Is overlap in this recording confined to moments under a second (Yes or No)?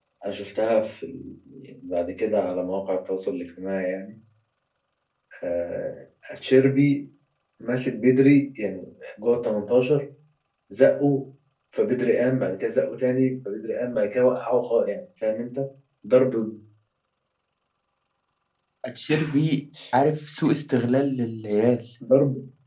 Yes